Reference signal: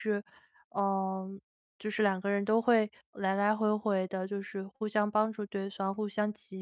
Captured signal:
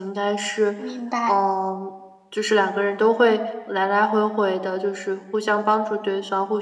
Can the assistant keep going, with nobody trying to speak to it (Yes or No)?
No